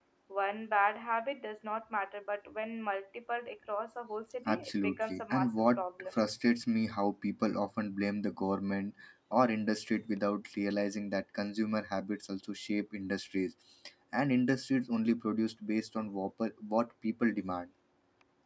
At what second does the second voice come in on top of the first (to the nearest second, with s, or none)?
4 s